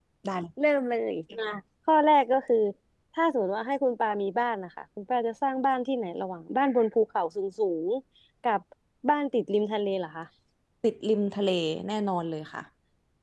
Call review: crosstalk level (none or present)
none